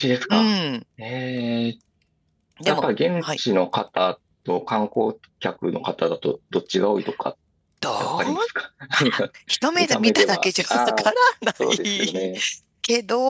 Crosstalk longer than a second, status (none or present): present